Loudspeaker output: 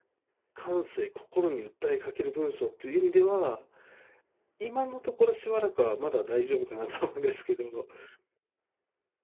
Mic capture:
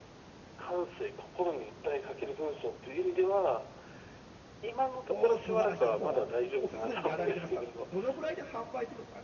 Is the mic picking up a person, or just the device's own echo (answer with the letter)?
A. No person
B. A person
B